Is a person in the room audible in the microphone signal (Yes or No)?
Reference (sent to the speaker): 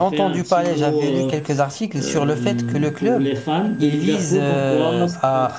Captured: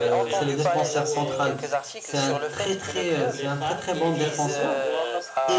Yes